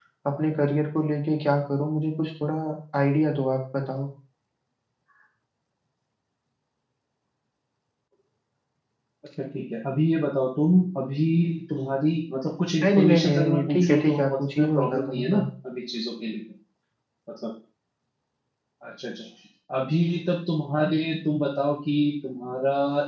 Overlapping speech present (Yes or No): Yes